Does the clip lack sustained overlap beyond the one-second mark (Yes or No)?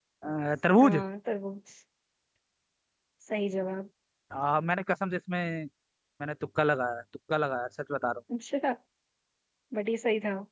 Yes